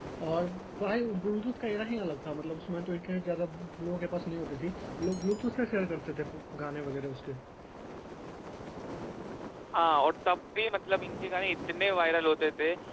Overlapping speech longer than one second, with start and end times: none

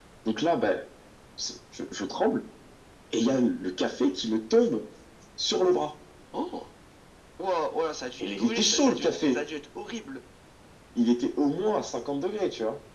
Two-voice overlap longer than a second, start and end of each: 8.2-9.4

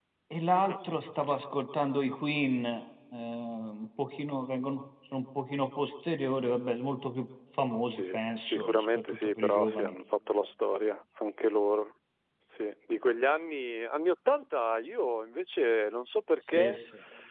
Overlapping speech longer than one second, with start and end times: 7.8-9.9

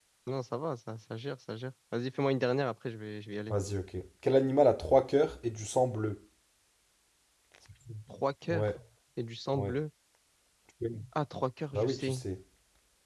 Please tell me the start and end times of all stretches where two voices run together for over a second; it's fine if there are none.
none

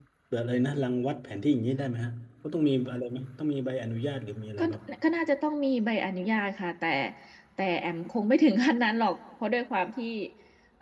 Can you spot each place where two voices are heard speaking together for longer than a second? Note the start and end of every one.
none

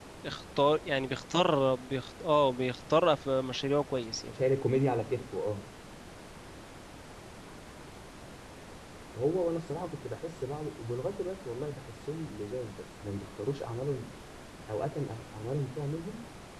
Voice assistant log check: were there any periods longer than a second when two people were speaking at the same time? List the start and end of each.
none

